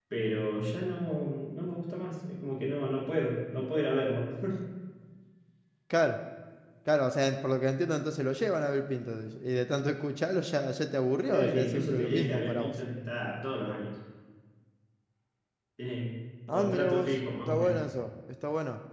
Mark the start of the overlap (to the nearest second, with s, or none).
11 s